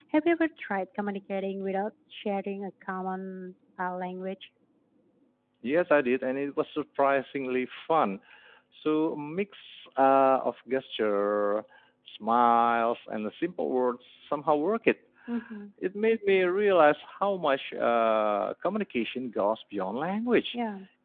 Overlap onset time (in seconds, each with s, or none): none